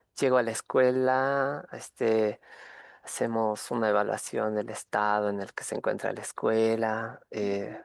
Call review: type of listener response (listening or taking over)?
listening